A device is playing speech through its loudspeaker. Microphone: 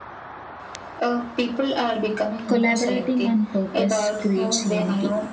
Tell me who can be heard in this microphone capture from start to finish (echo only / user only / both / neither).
both